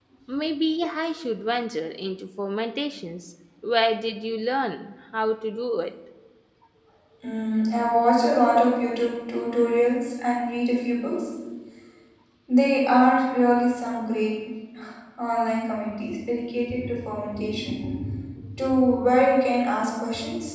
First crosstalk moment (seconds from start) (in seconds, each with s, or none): none